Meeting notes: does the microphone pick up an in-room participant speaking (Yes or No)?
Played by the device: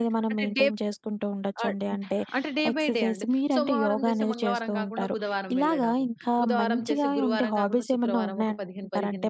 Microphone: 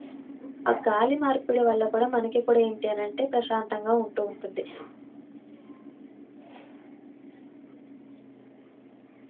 Yes